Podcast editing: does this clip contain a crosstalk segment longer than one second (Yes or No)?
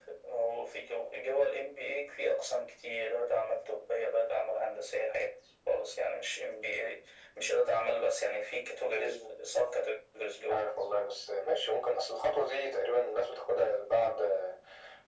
No